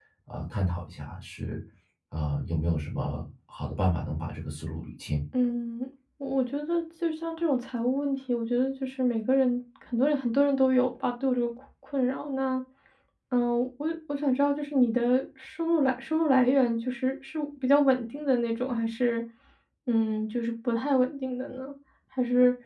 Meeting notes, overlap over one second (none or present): none